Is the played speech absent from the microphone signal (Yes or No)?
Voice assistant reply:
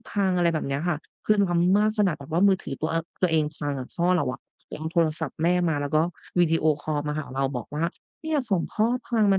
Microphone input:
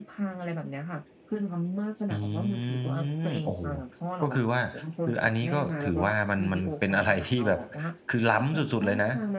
No